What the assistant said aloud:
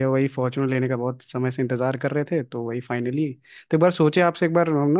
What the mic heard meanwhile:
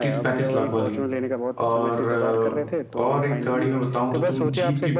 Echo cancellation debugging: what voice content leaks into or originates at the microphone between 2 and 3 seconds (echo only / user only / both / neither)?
both